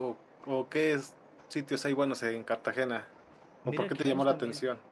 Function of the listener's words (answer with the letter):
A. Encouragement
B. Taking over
B